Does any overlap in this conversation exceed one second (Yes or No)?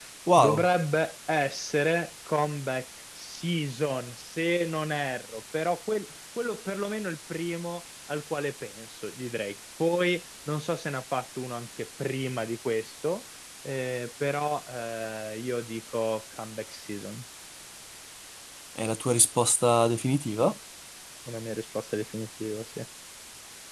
No